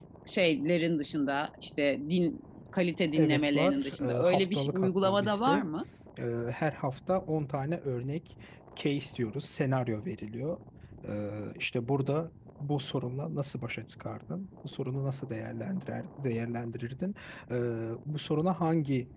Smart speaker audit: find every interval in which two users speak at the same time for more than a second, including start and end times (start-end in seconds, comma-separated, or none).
3.1-5.6